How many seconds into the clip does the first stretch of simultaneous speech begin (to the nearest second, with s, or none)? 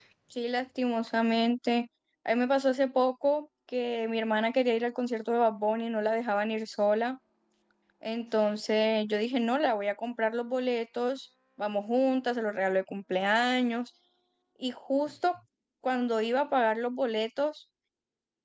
none